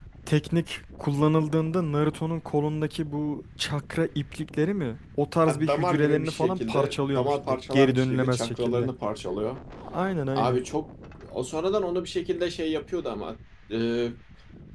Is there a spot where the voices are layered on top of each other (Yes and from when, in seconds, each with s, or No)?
Yes, from 5.5 s